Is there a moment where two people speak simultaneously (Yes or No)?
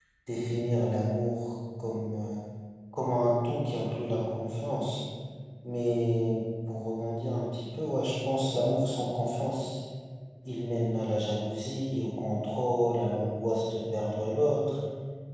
No